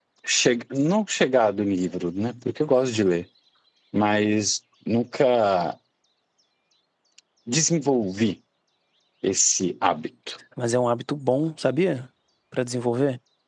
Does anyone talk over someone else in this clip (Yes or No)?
No